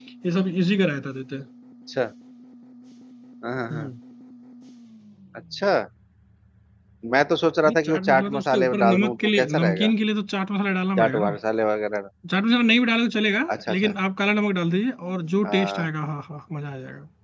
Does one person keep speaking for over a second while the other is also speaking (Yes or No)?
Yes